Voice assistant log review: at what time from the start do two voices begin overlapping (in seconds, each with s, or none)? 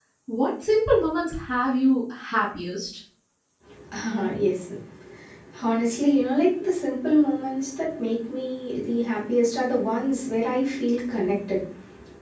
none